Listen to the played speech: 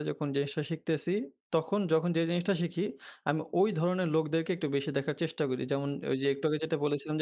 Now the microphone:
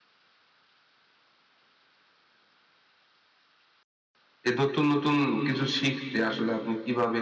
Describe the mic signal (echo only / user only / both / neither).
user only